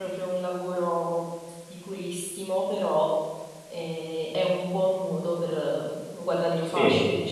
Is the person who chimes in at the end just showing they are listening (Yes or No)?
No